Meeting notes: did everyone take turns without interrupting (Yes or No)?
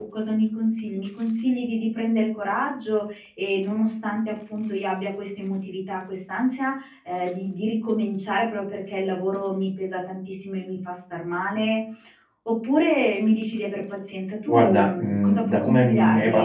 No